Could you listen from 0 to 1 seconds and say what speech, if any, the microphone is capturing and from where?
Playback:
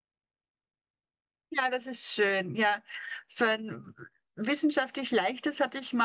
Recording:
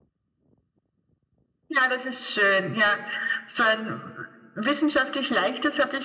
neither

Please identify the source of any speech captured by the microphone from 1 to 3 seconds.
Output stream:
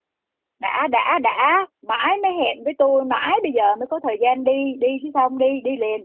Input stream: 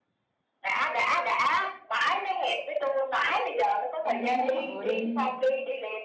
echo only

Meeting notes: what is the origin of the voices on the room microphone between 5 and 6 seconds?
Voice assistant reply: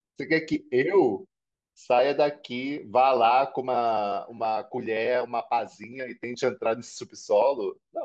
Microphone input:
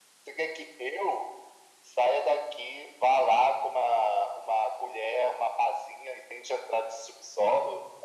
echo only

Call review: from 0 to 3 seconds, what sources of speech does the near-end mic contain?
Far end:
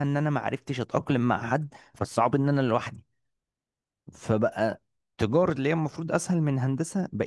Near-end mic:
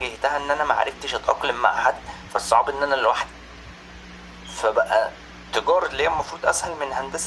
echo only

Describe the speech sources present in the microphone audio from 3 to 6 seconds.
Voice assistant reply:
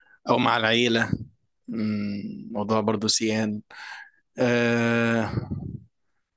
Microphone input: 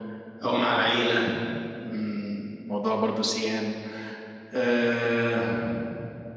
echo only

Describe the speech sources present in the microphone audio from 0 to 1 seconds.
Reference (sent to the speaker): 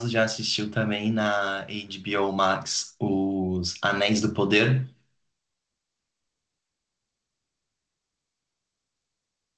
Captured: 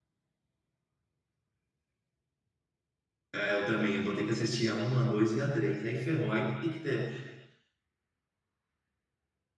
neither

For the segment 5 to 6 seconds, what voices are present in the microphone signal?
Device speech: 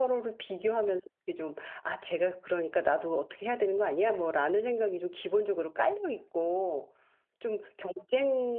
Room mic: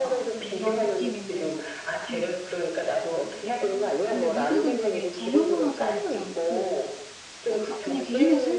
both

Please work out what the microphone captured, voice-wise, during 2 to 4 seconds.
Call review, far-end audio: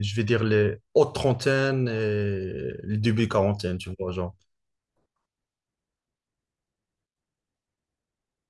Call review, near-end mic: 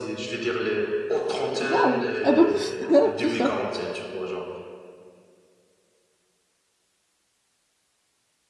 both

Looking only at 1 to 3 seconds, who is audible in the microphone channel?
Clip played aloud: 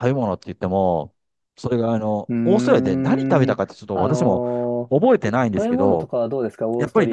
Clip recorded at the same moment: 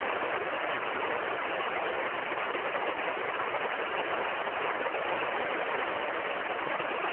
neither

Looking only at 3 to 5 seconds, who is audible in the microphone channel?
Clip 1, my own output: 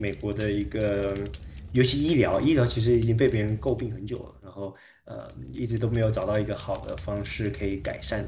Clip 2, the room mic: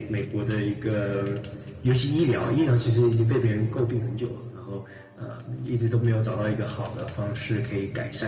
echo only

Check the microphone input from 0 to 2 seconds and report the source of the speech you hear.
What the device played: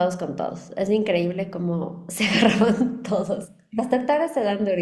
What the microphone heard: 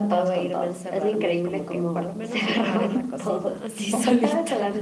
both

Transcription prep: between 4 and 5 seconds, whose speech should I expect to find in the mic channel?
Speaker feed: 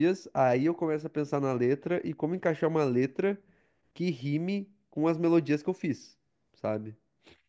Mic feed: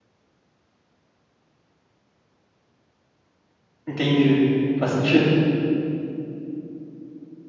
user only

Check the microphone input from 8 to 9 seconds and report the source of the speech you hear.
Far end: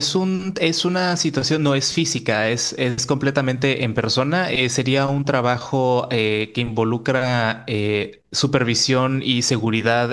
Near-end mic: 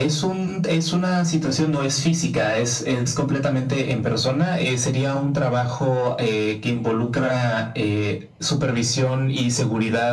echo only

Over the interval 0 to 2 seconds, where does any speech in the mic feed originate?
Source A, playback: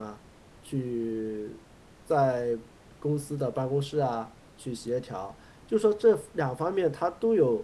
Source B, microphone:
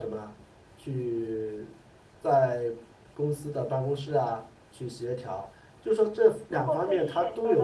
echo only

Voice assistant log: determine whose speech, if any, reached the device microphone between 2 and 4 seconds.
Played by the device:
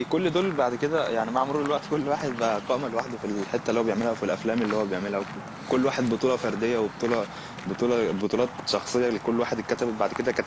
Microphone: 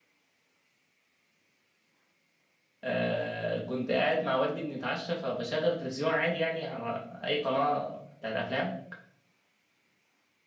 user only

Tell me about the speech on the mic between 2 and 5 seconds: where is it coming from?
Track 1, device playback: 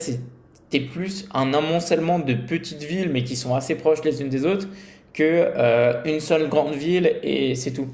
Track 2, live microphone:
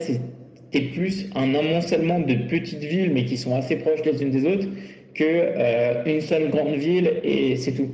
echo only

